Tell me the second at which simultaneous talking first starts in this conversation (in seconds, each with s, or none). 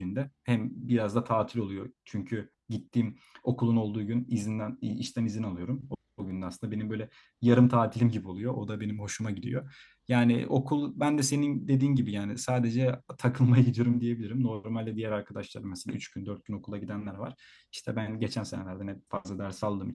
none